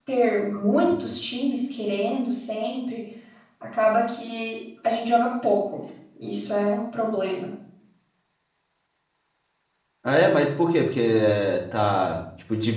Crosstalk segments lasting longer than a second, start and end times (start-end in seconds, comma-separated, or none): none